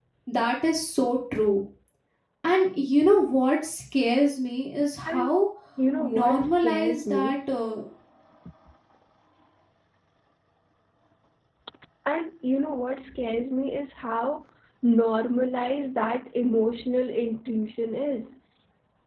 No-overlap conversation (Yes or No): No